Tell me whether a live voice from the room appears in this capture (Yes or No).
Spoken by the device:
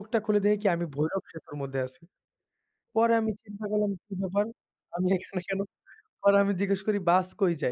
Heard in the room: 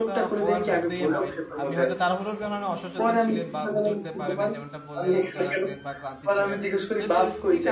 Yes